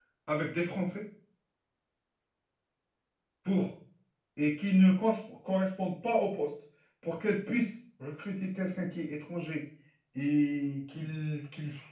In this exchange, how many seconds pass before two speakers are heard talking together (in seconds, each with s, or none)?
none